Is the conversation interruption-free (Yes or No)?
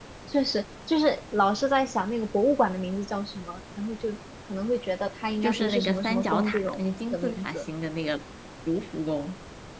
No